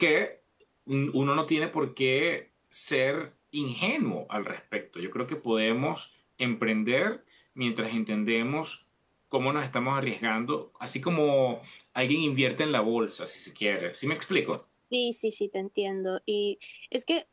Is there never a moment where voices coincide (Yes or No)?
Yes